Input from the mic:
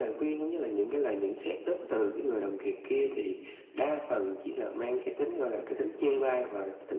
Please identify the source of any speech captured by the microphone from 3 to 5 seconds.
echo only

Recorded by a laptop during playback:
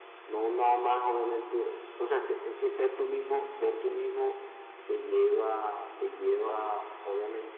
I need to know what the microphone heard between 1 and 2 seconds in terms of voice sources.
echo only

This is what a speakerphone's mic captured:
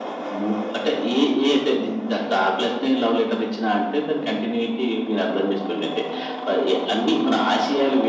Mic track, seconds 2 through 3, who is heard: echo only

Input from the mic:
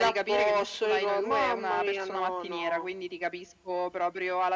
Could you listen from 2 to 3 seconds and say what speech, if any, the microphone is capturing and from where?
echo only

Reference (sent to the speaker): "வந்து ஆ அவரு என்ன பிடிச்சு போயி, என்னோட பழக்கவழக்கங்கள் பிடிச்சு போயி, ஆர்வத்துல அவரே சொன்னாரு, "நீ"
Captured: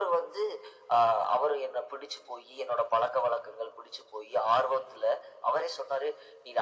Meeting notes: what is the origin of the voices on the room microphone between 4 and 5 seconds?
echo only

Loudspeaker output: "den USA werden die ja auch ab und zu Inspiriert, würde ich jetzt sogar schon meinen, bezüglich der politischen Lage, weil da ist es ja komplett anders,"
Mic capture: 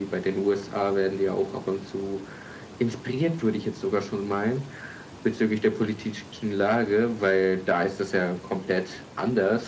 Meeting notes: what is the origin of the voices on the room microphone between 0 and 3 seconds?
echo only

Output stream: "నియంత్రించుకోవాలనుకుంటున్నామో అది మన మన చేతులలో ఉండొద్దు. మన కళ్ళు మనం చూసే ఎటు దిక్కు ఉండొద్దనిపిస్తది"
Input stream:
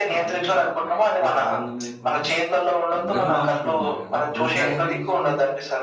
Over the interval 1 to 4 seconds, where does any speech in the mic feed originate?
both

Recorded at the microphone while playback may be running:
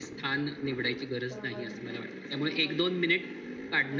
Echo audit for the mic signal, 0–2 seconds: both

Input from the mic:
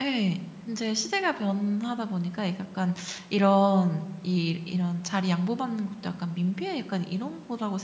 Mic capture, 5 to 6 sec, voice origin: user only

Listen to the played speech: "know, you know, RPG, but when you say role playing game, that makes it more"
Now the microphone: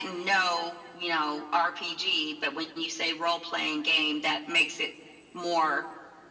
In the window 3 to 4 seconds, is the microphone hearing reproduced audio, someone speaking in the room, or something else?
echo only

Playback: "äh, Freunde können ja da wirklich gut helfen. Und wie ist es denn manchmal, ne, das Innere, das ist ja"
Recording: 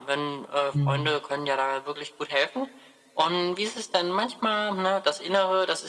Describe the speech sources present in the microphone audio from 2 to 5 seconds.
echo only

